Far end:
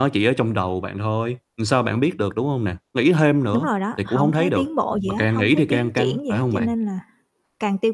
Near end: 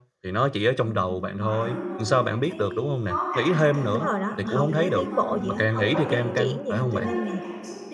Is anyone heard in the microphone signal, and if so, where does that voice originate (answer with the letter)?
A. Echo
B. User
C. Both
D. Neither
C